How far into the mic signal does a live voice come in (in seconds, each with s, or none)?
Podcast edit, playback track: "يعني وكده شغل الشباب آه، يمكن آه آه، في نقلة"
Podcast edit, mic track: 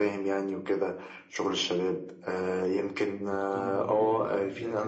3.3 s